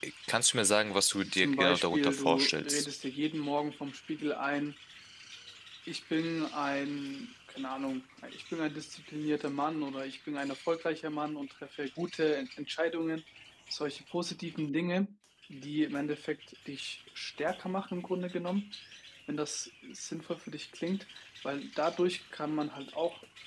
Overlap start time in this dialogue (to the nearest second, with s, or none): 1 s